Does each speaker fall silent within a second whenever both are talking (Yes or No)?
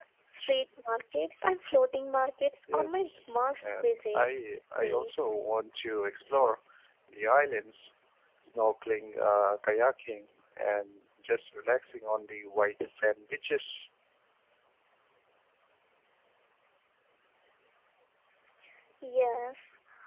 No